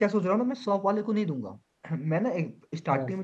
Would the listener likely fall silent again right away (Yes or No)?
Yes